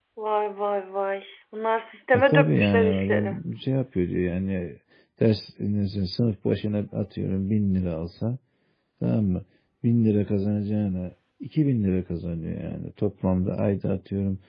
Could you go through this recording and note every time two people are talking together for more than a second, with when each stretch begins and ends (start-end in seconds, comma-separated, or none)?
2.1-3.4